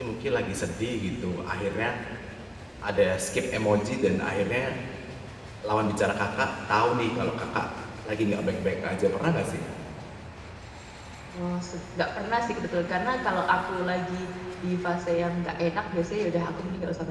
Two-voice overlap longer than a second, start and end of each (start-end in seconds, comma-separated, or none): none